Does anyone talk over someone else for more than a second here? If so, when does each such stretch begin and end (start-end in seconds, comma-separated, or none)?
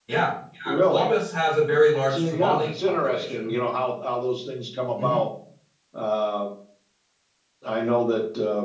2.1-3.5